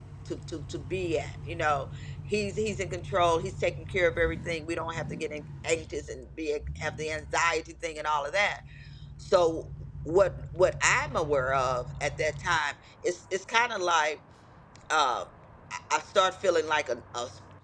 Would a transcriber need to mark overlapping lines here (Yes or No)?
No